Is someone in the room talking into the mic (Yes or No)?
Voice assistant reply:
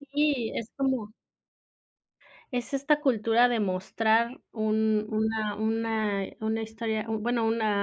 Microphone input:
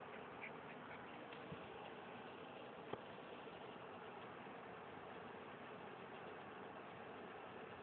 No